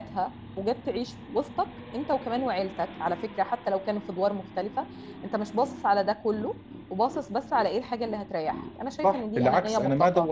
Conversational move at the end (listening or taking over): taking over